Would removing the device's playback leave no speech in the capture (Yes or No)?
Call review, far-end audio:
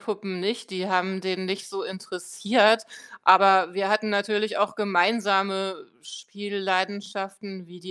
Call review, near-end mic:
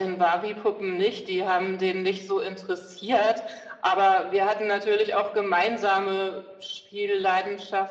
Yes